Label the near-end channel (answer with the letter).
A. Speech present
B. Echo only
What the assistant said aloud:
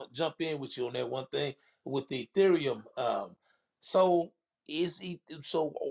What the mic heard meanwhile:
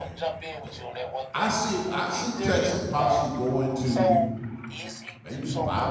A